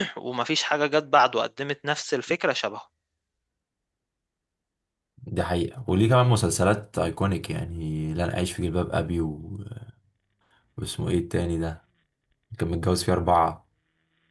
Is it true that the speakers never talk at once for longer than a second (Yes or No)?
Yes